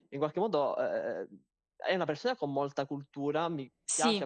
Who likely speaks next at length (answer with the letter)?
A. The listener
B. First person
B